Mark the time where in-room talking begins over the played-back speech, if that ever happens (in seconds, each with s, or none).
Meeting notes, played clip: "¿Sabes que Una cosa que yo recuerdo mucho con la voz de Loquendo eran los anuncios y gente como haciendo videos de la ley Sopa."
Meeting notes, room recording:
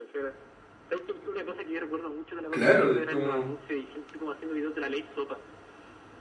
2.5 s